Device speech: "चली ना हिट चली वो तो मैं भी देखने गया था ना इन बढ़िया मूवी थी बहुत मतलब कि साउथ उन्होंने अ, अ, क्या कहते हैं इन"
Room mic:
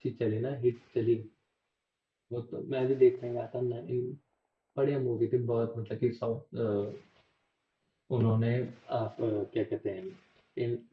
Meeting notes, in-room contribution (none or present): none